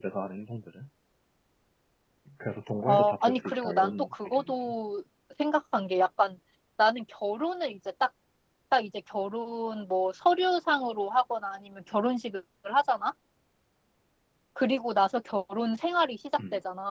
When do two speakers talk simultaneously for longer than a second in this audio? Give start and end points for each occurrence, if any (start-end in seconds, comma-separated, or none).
2.9-4.7